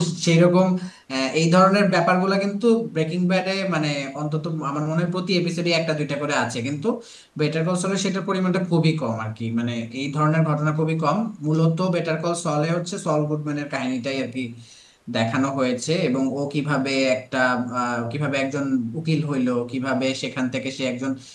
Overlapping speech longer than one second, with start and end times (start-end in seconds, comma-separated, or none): none